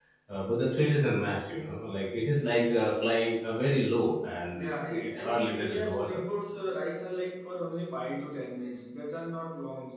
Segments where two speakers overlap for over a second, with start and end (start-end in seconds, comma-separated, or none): 4.5-6.2